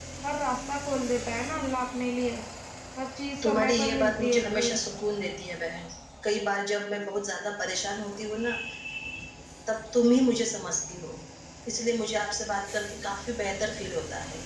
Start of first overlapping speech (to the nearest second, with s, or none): 3 s